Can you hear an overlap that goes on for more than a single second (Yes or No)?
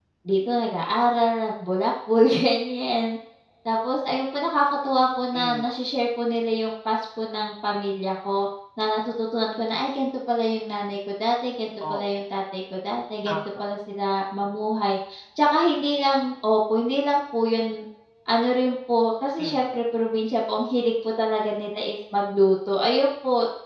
No